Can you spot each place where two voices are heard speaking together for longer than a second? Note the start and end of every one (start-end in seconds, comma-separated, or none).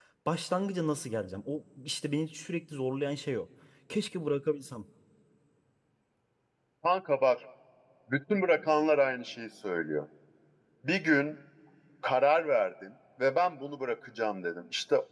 none